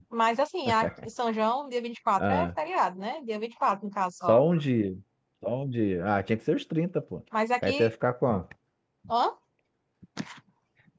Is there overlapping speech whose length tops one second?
No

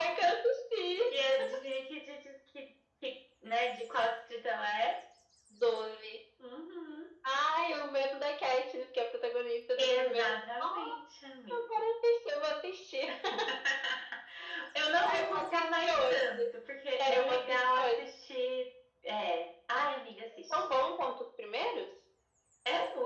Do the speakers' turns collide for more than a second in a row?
Yes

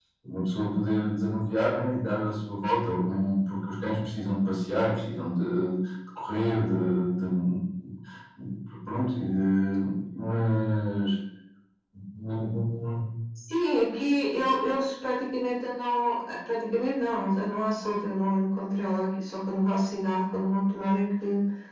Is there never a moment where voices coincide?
Yes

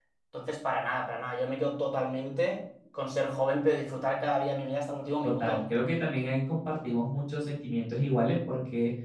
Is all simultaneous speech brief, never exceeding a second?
Yes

